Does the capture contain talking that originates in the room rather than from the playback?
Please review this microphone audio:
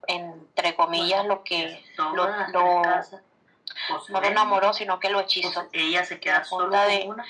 No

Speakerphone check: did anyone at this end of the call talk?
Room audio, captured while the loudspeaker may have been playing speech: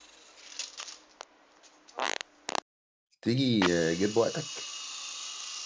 Yes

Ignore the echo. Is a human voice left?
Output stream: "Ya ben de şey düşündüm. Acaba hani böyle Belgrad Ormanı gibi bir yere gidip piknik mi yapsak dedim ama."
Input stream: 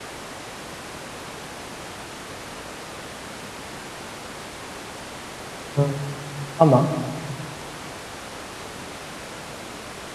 Yes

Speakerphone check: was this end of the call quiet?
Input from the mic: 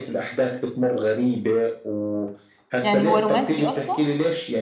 No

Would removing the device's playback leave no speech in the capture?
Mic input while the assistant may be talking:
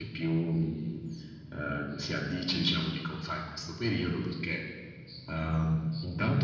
Yes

